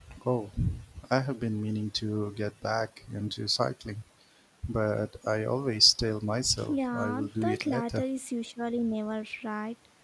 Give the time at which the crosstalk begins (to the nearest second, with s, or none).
7 s